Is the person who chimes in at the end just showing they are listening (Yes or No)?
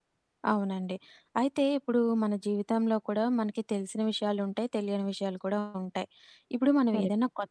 Yes